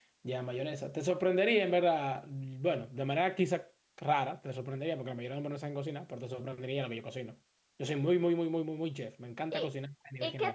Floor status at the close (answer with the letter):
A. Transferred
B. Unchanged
A